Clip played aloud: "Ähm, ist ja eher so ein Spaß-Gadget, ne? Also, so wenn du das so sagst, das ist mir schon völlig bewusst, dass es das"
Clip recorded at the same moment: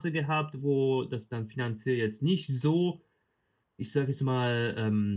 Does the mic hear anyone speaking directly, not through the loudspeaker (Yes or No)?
Yes